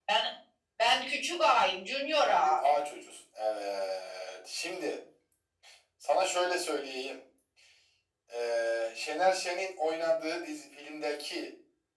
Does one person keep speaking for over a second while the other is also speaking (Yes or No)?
No